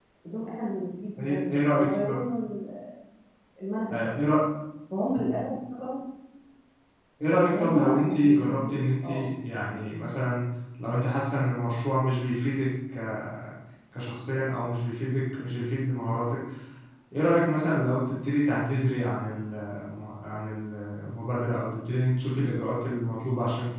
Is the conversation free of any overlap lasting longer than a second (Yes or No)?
No